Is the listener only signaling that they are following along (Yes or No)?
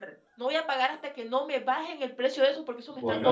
No